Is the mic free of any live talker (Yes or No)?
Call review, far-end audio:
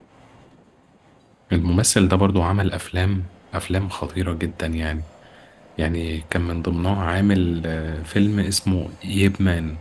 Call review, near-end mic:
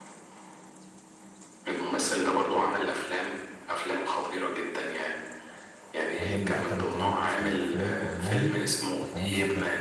No